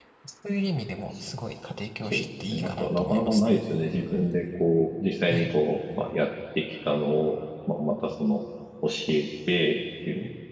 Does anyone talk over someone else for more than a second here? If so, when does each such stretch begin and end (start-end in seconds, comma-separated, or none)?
2.0-3.6